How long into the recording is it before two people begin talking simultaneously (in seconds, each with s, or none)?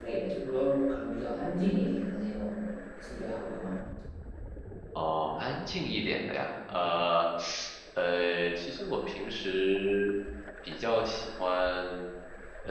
none